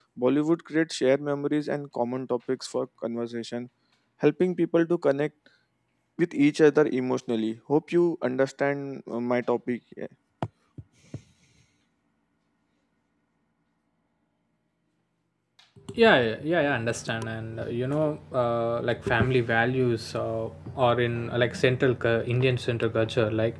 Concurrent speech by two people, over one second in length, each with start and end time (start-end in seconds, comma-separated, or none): none